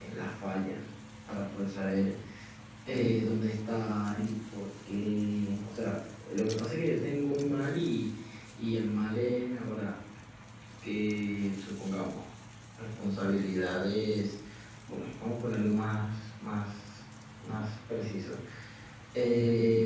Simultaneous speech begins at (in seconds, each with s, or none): none